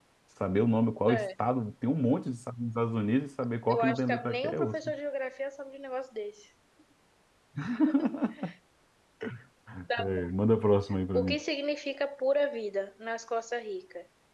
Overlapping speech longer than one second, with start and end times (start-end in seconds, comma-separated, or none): 3.7-4.9